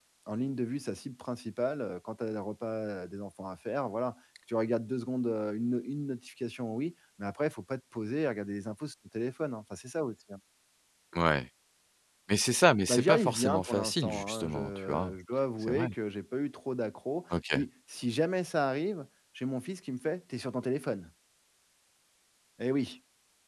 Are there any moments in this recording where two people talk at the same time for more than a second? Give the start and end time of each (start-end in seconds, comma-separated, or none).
12.9-15.1